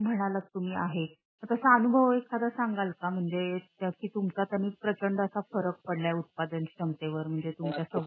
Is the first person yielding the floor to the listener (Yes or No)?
Yes